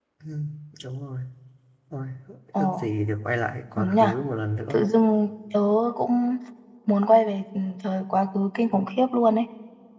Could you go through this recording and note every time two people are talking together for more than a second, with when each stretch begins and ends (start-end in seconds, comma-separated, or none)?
none